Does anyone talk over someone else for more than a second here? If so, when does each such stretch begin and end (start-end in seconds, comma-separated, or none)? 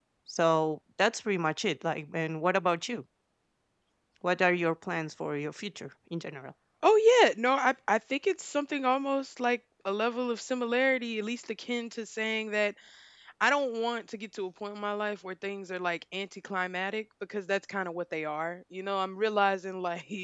none